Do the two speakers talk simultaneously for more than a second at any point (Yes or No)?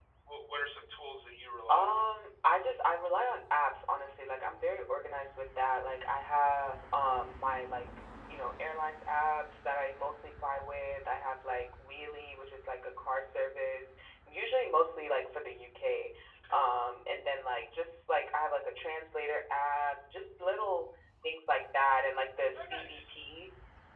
No